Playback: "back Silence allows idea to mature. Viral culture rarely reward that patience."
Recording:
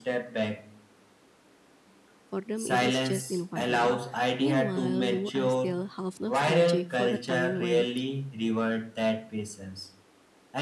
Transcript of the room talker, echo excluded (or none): for them it is just the environment meanwhile you are still half nostalgic for a time when